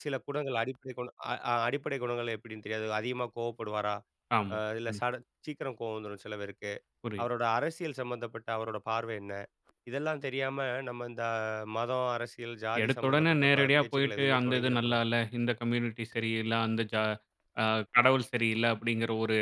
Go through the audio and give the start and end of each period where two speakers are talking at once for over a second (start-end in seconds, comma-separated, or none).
12.8-15.0